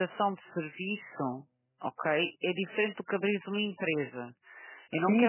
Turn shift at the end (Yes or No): Yes